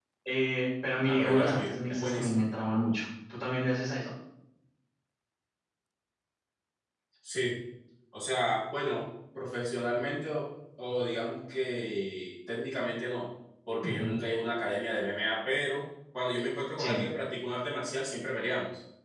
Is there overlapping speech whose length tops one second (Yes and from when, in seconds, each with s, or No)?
Yes, from 1.0 s